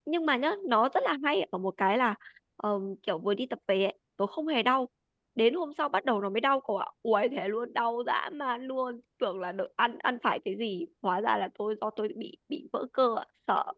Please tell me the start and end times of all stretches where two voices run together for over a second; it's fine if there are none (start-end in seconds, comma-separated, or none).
none